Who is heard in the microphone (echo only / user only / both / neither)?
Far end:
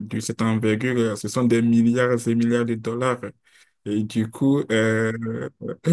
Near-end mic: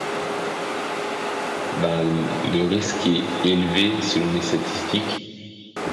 user only